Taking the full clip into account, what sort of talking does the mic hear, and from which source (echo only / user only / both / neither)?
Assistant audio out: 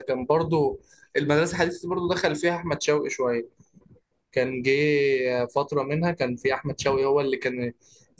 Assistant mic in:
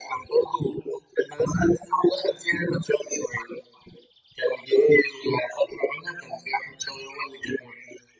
echo only